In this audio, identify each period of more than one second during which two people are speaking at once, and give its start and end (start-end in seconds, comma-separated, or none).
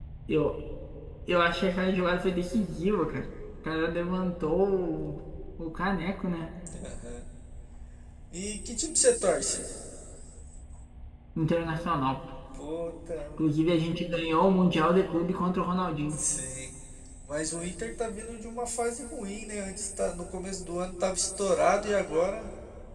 none